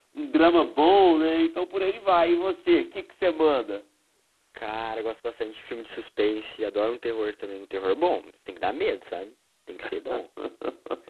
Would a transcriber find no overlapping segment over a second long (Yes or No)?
Yes